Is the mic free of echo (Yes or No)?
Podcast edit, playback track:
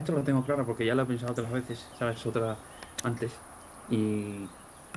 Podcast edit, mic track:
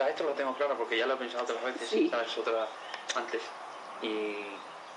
No